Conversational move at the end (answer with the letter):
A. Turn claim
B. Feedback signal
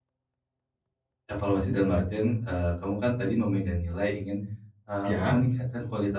B